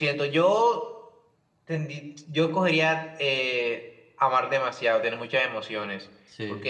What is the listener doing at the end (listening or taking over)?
listening